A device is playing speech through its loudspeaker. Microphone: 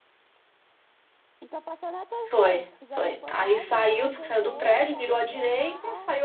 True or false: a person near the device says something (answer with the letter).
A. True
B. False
A